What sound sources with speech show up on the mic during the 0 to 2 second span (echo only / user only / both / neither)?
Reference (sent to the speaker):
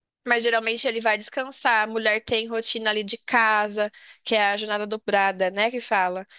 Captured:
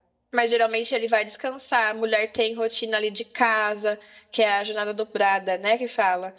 echo only